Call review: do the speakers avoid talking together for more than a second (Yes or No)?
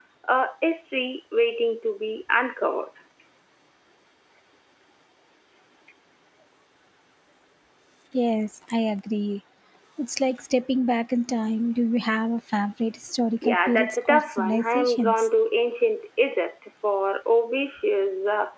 No